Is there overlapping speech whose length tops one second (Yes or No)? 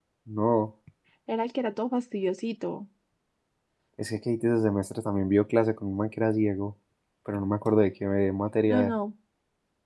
No